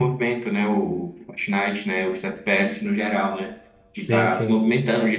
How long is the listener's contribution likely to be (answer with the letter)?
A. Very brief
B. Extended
A